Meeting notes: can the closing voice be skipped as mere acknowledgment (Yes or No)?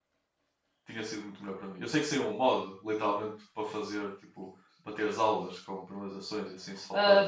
No